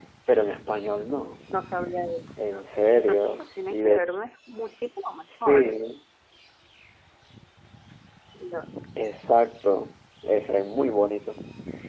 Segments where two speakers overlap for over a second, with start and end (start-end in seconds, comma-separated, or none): 2.9-4.2